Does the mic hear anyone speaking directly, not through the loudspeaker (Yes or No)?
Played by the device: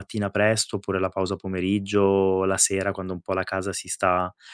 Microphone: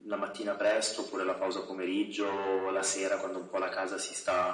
No